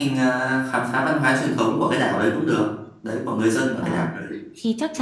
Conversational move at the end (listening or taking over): taking over